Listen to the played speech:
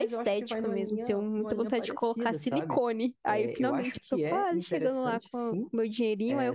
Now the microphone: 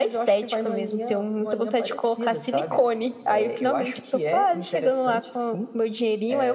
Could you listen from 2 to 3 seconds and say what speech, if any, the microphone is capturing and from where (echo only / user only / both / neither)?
echo only